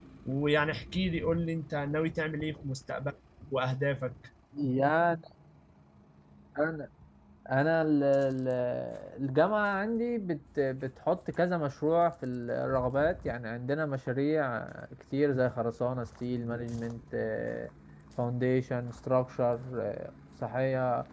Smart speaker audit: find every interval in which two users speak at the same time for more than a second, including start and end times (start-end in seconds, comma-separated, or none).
none